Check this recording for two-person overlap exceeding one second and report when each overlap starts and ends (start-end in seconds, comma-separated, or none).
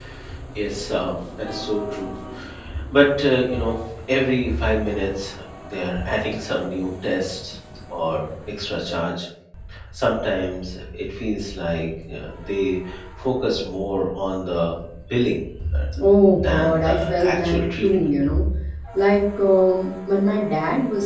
16.4-17.9